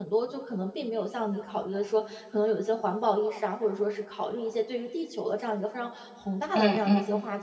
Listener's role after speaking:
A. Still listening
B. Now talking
A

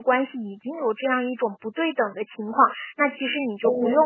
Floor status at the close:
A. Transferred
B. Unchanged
B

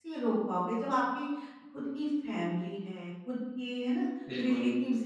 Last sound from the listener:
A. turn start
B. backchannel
B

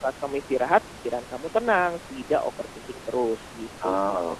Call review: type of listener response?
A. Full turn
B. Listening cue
A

